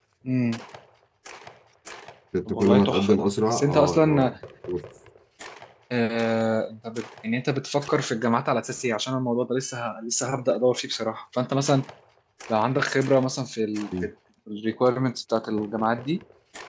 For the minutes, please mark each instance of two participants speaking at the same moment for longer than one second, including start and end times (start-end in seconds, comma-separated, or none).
2.5-4.3